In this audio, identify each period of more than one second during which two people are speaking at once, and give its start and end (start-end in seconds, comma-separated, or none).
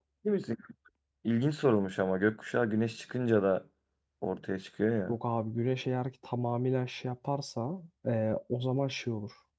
none